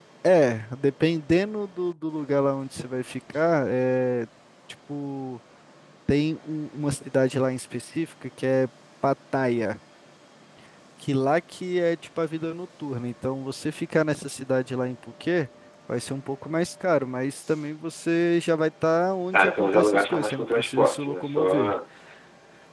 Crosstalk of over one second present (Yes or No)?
Yes